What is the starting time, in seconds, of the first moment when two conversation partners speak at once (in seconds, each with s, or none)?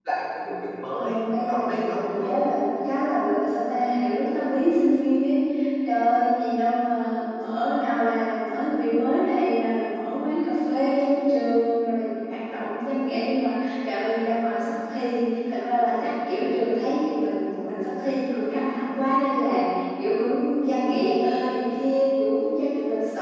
0.9 s